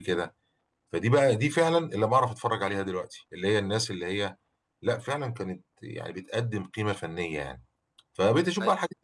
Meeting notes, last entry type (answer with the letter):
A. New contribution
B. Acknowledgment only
B